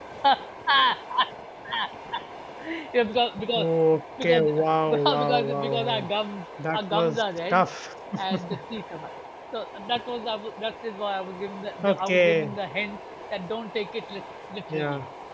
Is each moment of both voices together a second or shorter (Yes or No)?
No